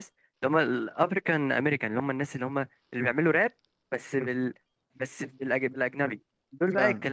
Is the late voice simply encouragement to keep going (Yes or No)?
Yes